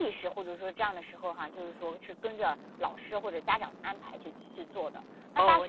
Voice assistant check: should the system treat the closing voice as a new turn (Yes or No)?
Yes